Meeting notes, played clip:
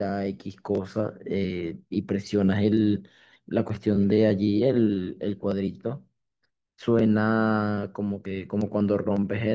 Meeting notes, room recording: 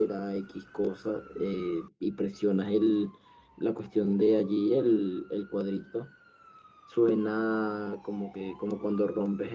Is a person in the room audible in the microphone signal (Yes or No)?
No